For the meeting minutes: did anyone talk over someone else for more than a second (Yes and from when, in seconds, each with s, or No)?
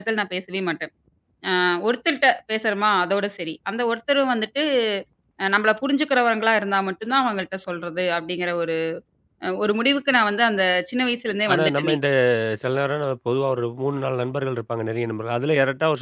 No